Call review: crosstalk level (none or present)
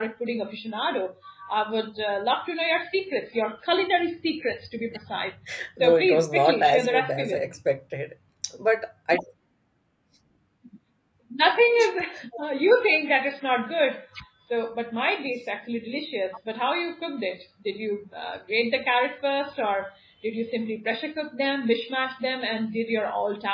present